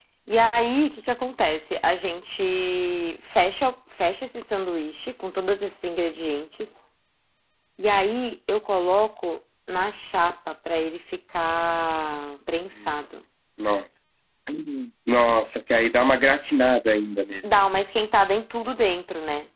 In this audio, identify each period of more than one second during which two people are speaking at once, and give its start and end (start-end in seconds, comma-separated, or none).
none